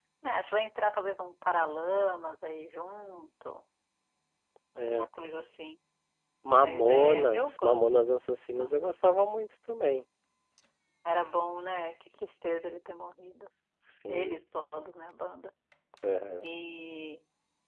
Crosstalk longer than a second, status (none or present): present